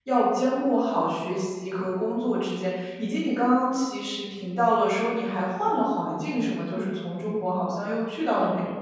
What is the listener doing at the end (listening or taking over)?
taking over